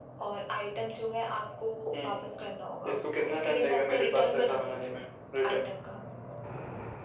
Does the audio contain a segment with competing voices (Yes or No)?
Yes